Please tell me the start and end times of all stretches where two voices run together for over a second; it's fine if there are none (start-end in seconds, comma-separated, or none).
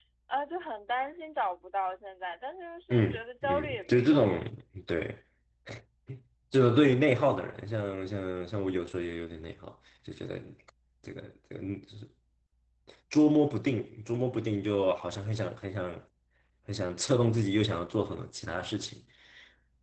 2.9-4.2